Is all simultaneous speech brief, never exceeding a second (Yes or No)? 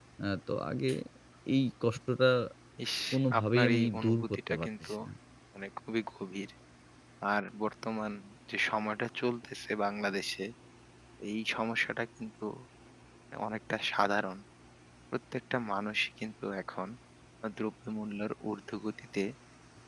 No